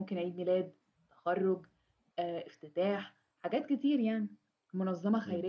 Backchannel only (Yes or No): No